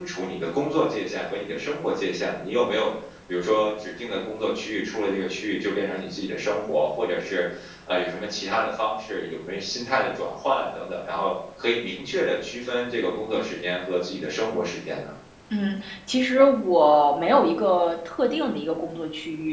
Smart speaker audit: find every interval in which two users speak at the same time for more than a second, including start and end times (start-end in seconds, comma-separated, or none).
none